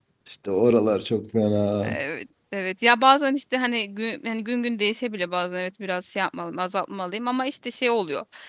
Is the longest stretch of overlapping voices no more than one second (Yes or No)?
Yes